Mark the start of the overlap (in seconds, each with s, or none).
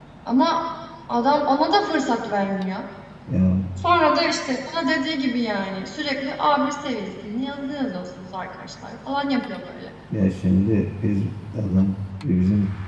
none